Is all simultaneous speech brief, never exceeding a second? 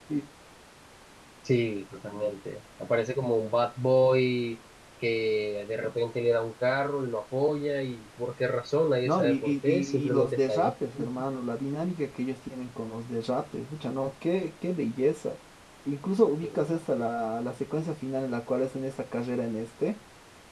No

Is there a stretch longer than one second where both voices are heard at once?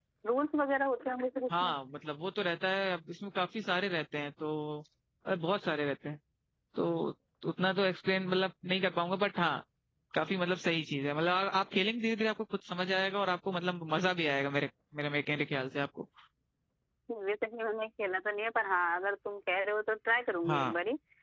No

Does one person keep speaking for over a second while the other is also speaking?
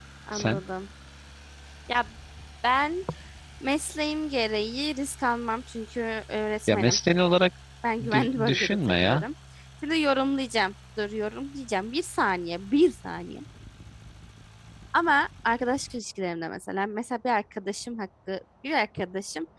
Yes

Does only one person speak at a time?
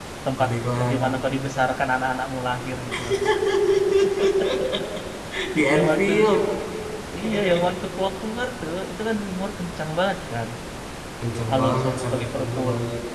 No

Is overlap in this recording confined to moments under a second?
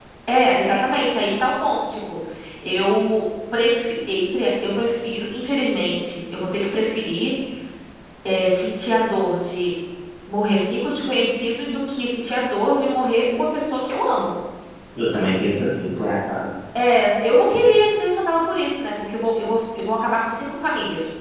Yes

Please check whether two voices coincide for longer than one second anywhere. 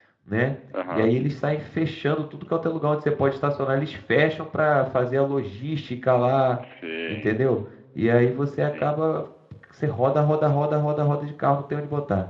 No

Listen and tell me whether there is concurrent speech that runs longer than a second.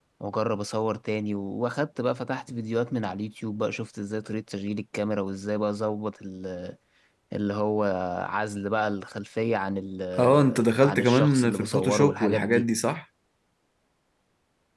Yes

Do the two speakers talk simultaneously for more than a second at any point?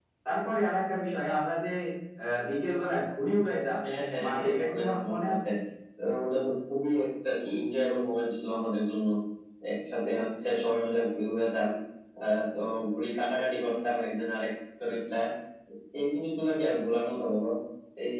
Yes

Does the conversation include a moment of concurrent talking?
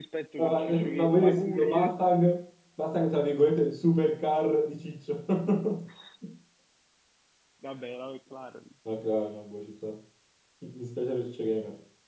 Yes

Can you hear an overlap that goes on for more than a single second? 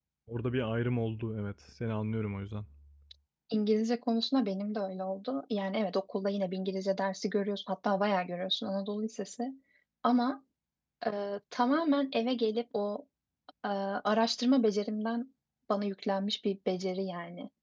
No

